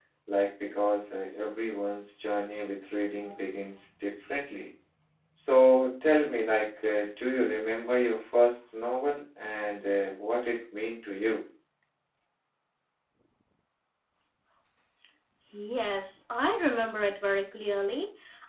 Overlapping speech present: No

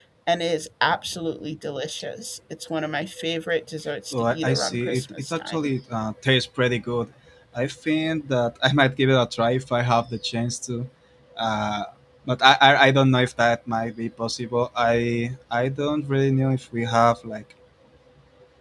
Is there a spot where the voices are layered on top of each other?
Yes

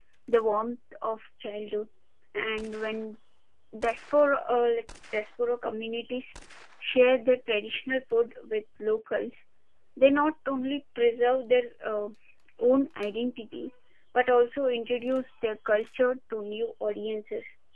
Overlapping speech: No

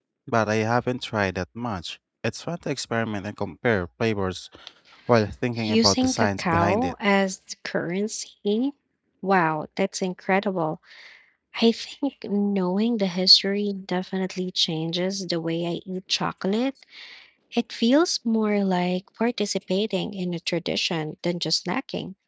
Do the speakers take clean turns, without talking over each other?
No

